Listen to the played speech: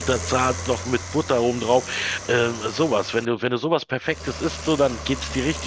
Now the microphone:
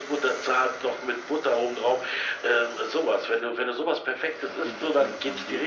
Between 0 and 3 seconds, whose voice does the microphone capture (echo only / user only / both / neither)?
echo only